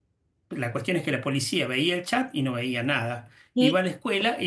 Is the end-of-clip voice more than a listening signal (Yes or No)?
No